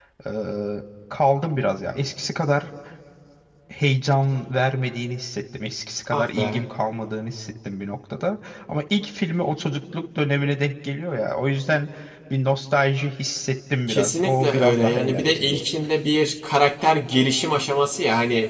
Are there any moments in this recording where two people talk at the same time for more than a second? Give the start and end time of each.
13.9-15.6

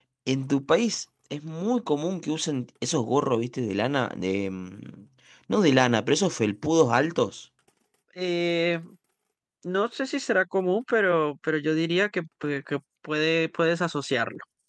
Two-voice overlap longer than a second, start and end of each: none

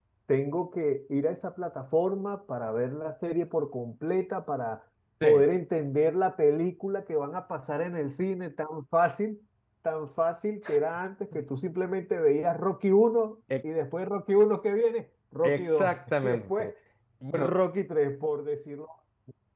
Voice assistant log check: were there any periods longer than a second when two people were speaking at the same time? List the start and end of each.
15.4-16.7

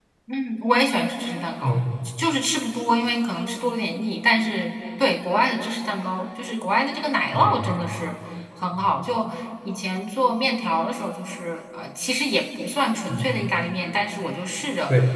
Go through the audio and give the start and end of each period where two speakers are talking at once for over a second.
none

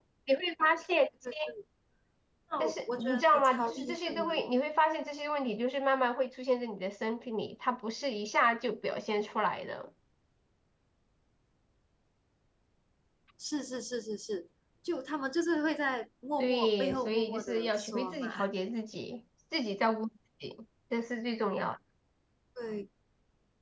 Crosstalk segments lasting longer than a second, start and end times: 2.6-4.4, 16.4-18.3

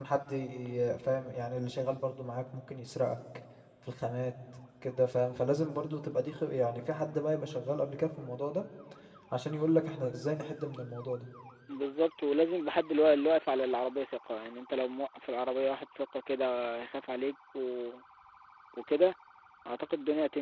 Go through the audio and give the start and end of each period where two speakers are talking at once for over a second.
none

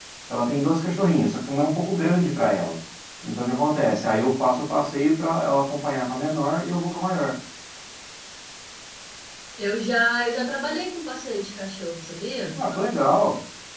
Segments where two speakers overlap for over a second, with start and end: none

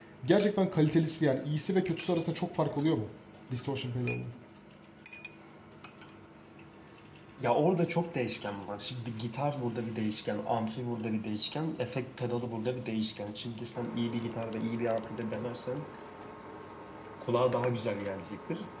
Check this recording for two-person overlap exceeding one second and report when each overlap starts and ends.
none

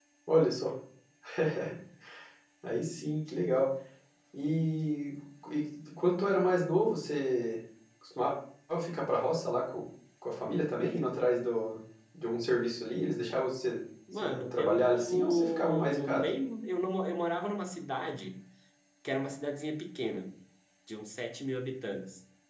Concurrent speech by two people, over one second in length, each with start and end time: 14.1-16.3

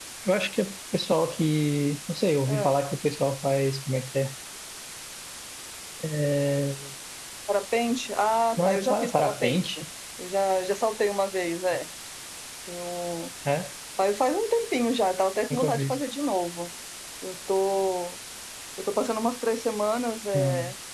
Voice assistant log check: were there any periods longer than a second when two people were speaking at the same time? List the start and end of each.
8.6-9.8

